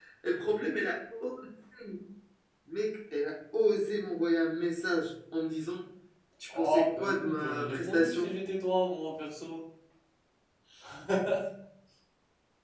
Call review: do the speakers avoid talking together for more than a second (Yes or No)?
No